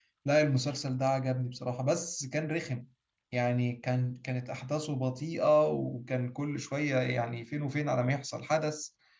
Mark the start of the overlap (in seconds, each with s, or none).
none